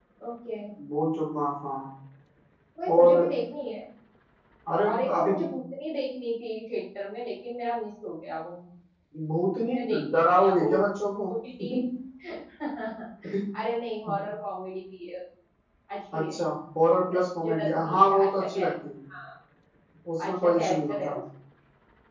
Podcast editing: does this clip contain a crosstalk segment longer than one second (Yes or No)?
Yes